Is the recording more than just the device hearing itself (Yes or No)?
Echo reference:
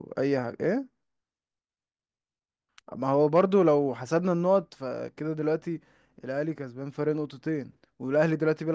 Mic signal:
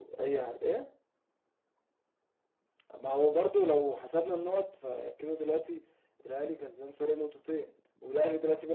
No